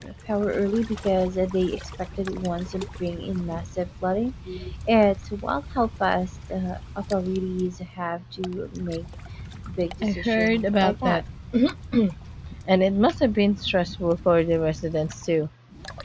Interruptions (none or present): present